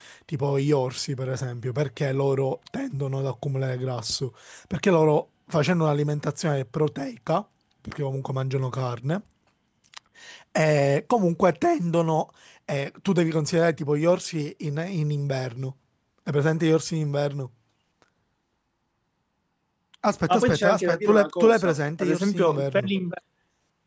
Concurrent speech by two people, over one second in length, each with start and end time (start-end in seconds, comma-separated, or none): 20.3-22.9